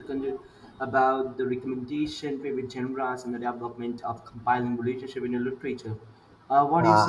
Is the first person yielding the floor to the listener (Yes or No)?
Yes